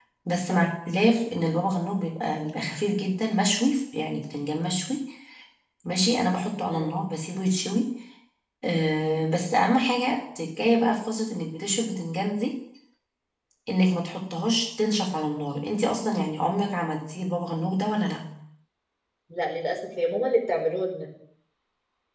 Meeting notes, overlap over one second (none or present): none